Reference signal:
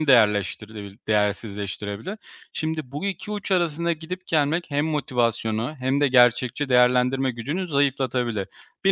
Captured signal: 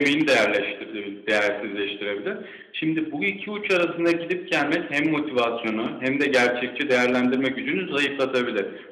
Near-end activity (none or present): none